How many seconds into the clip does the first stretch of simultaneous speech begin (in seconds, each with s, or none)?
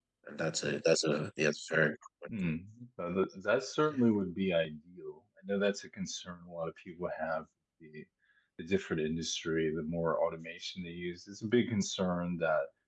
none